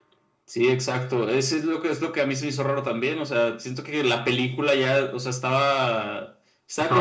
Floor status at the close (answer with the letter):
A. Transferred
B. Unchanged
B